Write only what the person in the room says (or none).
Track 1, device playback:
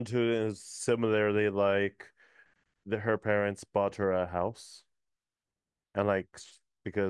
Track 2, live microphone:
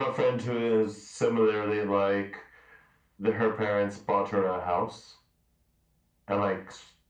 none